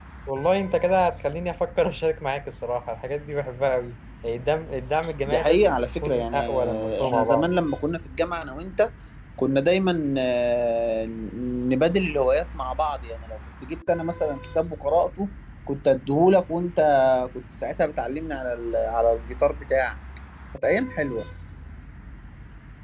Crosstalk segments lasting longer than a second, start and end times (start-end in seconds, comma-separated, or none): 5.3-7.5